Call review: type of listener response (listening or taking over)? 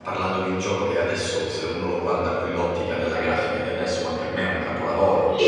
taking over